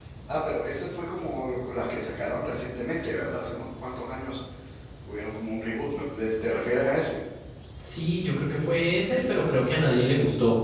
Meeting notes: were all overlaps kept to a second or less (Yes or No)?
Yes